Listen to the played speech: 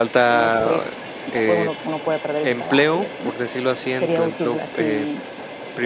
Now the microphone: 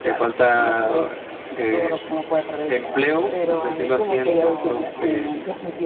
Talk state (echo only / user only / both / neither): both